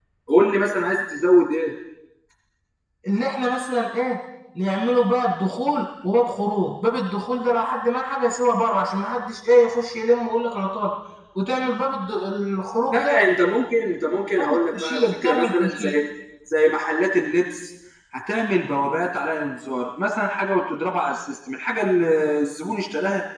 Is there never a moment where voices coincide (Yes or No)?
No